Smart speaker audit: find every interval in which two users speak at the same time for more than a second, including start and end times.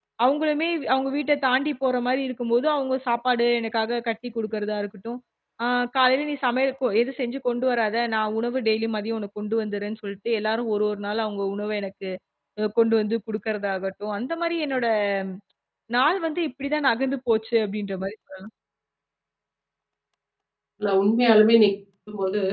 none

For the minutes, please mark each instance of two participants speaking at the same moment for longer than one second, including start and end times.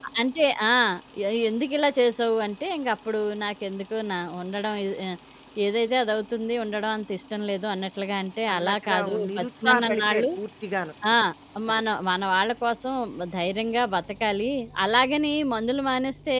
8.5-10.2

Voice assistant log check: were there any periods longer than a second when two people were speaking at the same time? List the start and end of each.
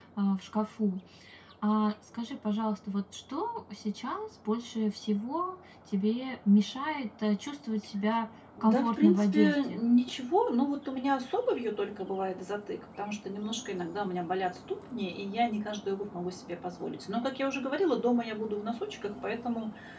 8.6-9.8

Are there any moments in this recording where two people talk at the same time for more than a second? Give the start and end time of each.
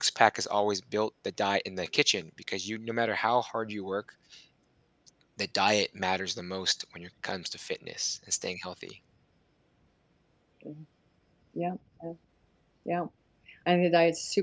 none

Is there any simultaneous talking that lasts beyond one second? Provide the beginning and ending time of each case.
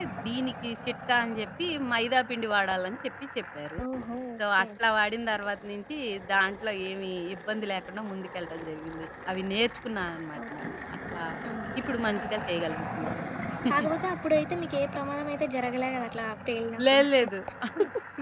none

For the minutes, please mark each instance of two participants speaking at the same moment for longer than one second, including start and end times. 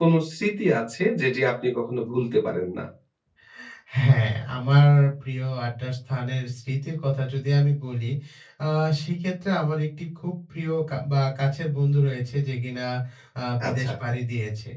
none

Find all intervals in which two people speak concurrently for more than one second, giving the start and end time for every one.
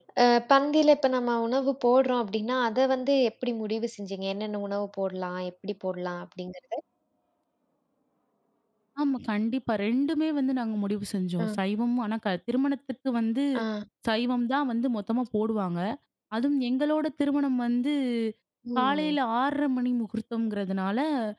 none

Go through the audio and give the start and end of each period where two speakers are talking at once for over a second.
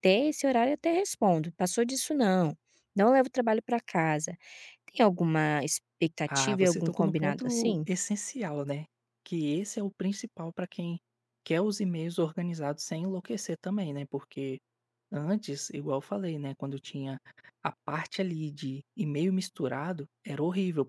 6.3-7.8

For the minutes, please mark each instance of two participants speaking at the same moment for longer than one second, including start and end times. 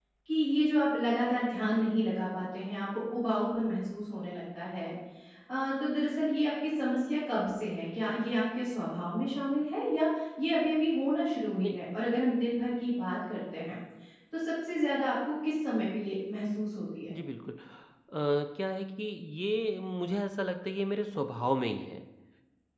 none

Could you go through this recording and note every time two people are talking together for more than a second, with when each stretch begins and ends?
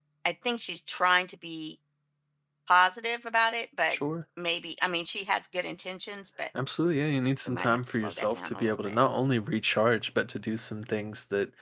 7.5-9.0

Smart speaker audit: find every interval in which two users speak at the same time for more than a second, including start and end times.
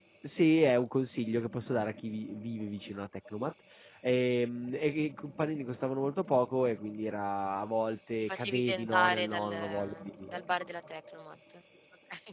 8.2-10.1

